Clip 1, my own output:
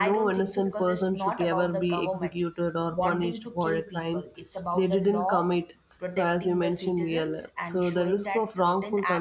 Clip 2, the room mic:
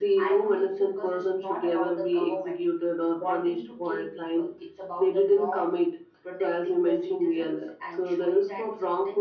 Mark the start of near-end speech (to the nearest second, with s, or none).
none